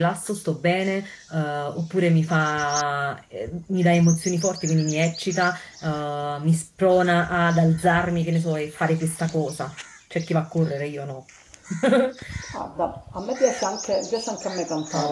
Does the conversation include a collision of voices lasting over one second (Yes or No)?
No